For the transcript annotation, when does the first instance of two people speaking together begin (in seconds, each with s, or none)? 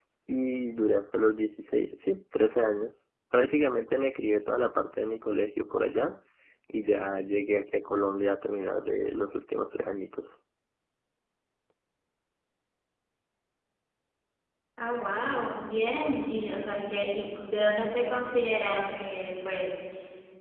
none